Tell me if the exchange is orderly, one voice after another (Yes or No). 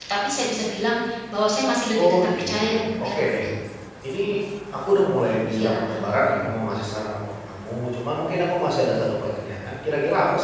No